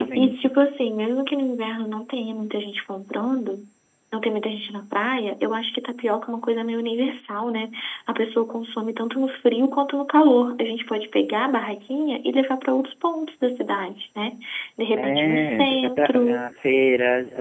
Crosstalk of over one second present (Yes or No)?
Yes